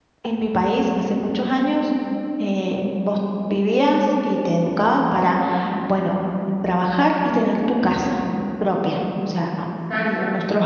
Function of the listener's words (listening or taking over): listening